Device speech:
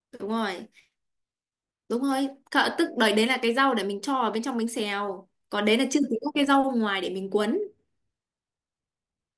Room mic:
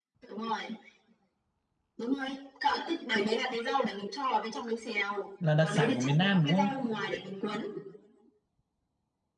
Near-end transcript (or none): là đặc sản của miền Nam đúng không?